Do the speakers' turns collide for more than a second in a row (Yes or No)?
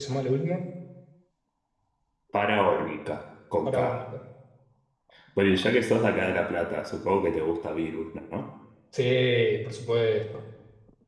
No